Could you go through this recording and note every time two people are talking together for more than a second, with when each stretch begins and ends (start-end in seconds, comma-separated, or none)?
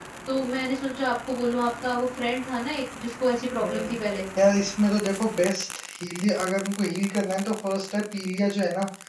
none